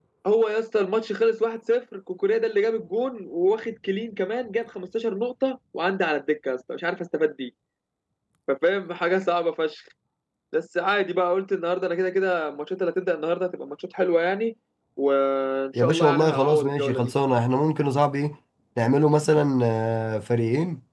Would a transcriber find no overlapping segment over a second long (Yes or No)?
No